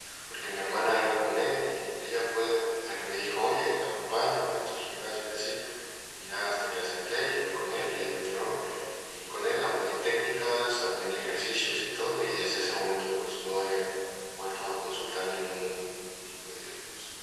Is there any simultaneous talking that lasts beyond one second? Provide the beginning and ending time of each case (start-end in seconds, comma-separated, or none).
none